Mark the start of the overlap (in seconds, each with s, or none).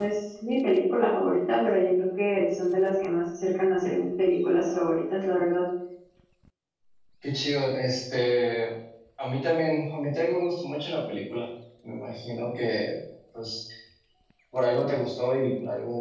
none